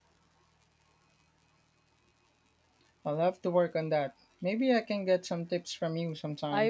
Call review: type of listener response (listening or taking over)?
taking over